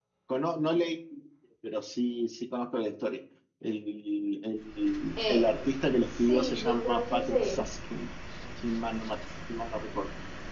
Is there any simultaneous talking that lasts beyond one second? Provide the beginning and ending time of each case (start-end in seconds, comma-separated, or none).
5.2-7.7